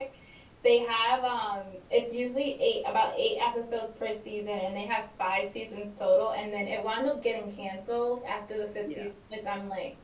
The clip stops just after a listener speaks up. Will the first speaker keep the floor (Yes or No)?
Yes